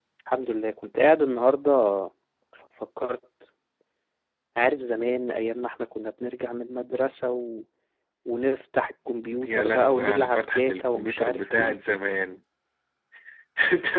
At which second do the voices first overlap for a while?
9.2 s

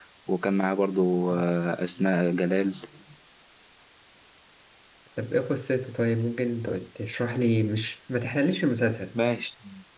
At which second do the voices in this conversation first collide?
none

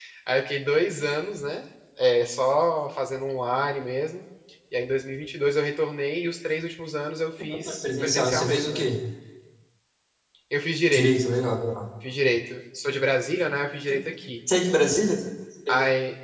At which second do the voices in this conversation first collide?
7.5 s

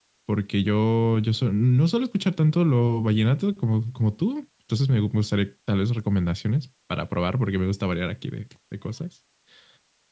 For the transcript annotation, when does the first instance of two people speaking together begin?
none

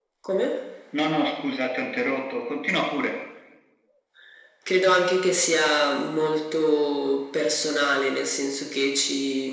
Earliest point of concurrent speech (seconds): none

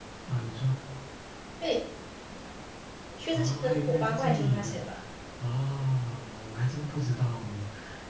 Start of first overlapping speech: 3.3 s

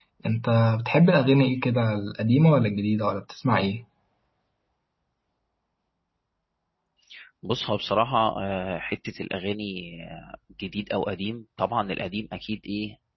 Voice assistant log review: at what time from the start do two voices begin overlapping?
none

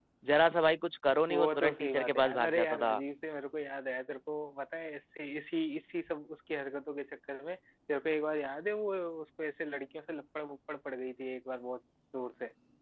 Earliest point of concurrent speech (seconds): 1.3 s

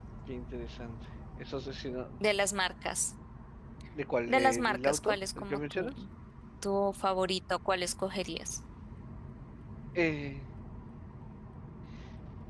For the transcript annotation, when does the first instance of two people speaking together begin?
4.3 s

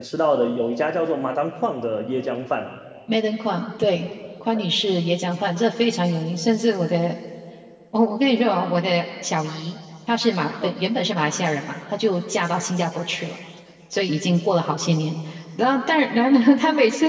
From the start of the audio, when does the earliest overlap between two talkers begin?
none

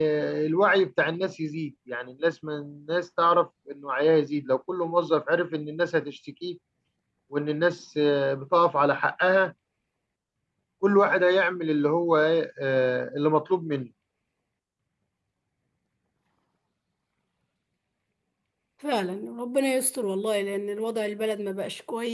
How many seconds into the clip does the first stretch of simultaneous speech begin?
none

